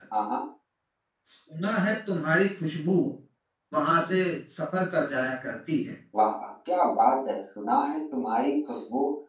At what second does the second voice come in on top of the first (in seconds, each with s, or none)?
none